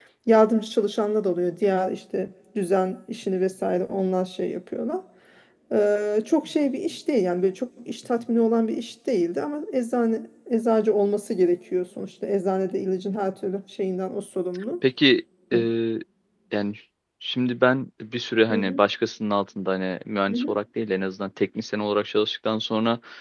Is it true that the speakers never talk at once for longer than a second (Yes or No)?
Yes